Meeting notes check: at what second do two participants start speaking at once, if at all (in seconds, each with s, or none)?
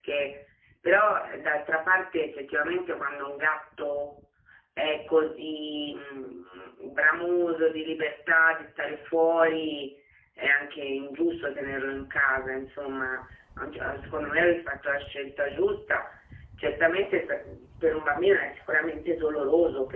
none